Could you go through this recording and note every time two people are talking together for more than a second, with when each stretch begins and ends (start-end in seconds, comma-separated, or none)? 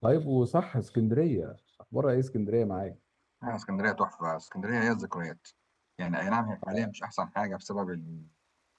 none